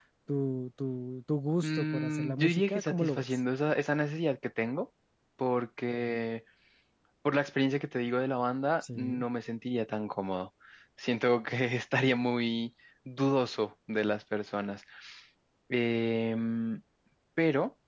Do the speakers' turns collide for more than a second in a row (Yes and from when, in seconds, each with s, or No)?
Yes, from 1.6 s